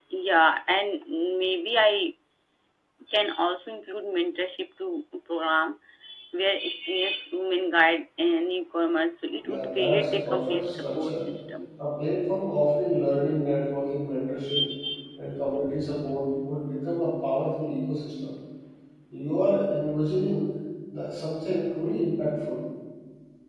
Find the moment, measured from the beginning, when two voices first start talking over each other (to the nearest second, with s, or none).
9 s